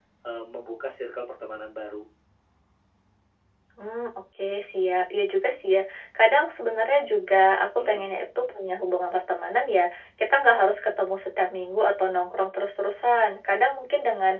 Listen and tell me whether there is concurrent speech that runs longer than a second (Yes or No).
No